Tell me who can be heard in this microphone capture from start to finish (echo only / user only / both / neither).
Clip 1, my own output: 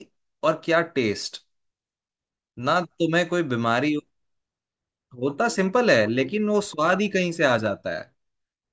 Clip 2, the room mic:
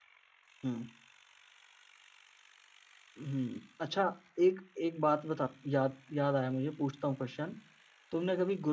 user only